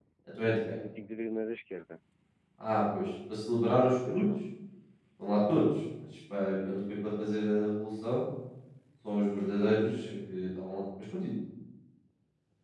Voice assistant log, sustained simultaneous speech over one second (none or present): none